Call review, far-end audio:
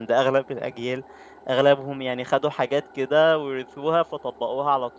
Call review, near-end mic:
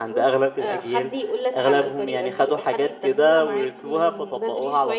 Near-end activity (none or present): present